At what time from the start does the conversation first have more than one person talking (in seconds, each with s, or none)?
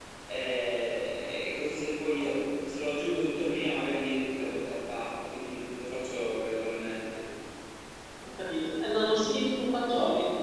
none